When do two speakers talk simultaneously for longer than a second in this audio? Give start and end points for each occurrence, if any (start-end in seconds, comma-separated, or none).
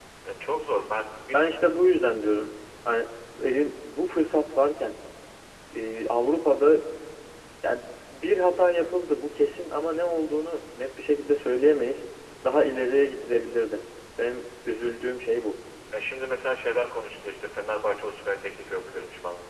none